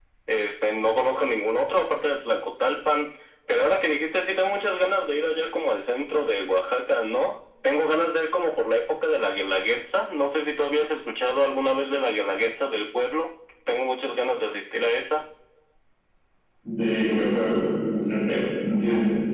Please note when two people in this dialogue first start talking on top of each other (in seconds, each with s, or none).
none